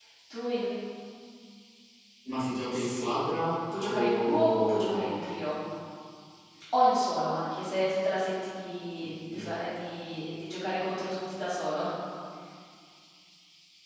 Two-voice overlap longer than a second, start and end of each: 3.8-5.2

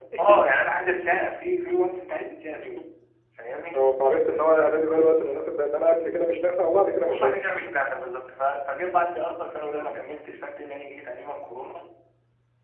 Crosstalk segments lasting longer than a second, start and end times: none

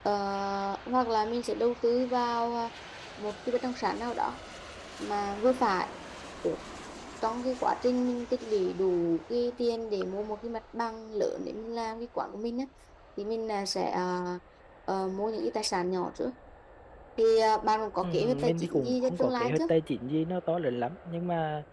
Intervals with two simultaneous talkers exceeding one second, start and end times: 18.0-19.7

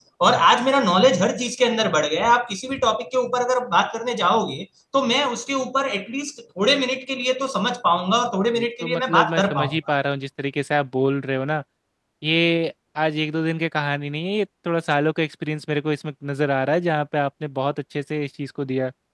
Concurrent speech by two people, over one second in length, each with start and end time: 8.5-9.8

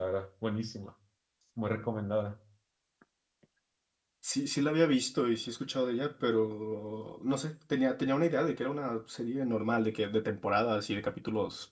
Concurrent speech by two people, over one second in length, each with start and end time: none

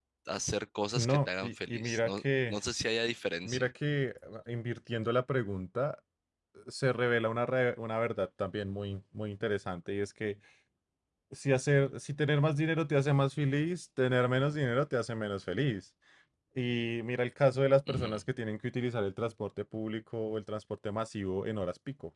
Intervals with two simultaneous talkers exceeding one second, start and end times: 0.9-2.6

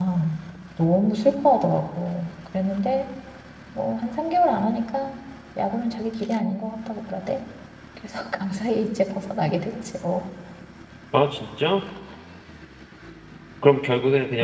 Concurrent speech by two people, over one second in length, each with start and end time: none

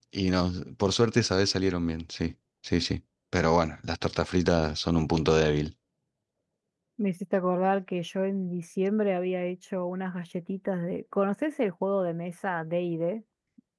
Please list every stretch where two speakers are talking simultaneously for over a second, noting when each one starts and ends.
none

